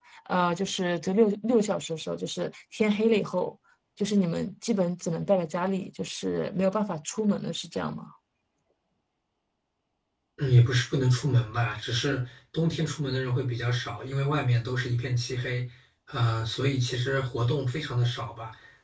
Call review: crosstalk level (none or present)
none